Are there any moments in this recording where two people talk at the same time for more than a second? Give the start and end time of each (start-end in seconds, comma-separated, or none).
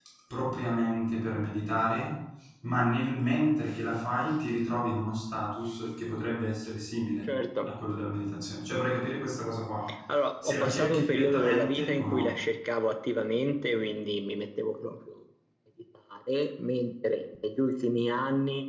10.4-12.3